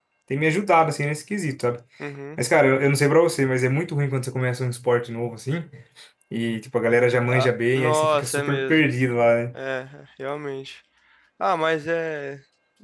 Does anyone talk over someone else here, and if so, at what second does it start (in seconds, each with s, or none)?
7.3 s